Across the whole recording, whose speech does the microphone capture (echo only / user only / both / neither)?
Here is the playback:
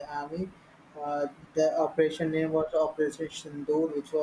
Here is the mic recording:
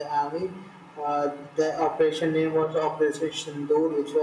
echo only